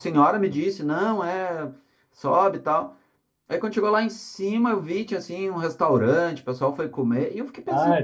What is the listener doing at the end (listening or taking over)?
taking over